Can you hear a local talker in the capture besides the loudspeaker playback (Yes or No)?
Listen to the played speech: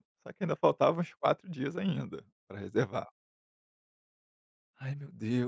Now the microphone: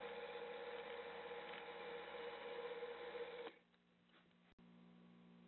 No